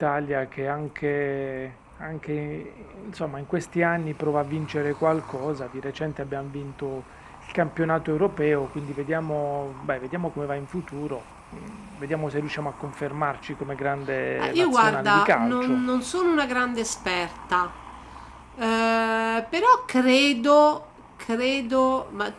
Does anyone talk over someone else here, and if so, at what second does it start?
14 s

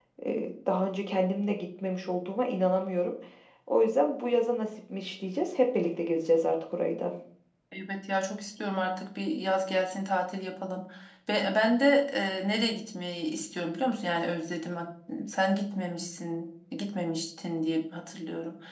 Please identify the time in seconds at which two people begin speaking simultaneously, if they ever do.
none

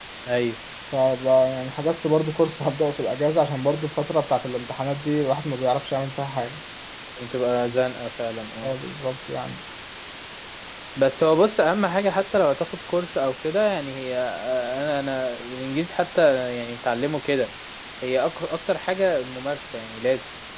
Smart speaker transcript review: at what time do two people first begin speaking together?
none

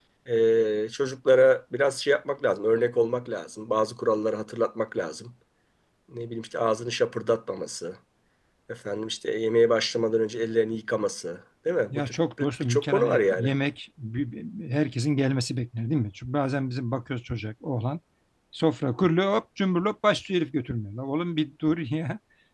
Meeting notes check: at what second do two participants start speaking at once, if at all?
12 s

